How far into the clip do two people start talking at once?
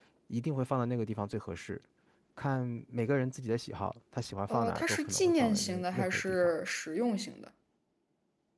4 s

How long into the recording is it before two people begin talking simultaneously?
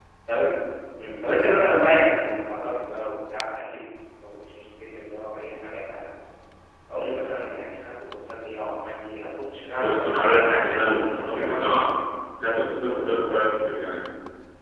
10 s

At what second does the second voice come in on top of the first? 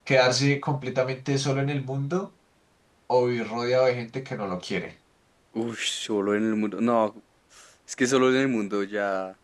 none

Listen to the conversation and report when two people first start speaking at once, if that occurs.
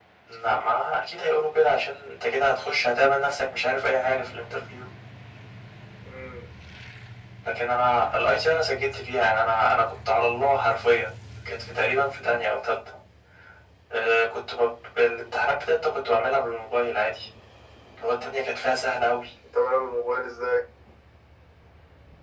none

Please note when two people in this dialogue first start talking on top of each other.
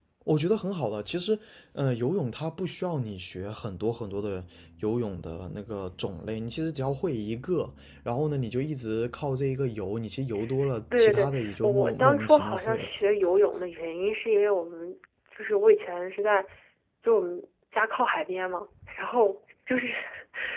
11 s

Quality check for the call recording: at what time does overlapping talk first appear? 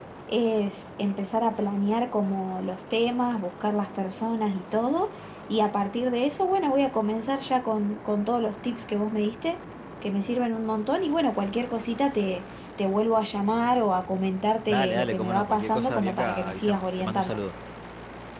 15 s

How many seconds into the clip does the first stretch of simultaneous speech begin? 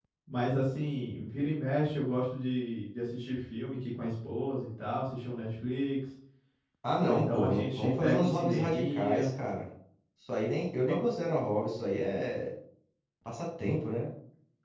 7 s

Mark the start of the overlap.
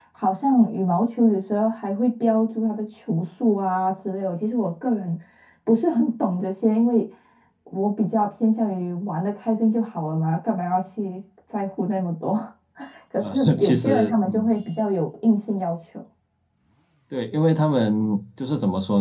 13 s

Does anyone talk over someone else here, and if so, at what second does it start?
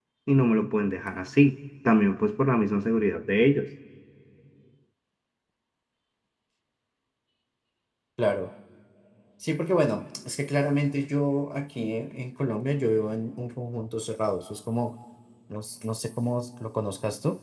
none

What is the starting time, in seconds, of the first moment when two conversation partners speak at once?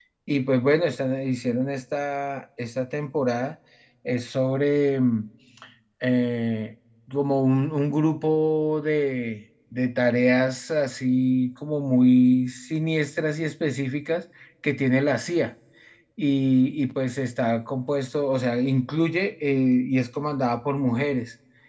none

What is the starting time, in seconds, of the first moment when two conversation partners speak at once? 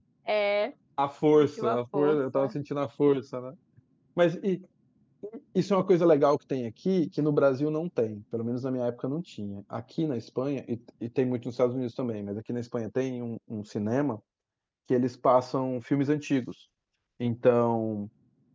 1 s

